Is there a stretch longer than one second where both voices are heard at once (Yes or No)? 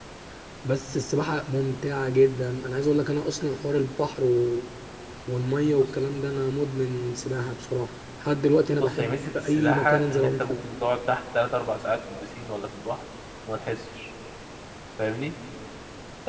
Yes